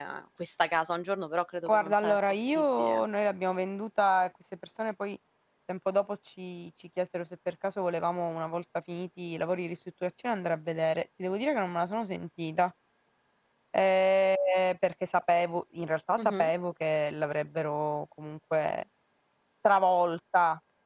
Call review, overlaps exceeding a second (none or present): present